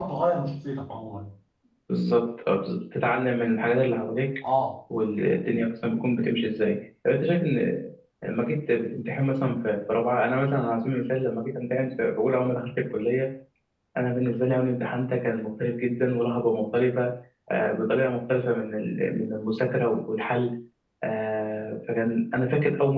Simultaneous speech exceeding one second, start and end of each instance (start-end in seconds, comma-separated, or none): none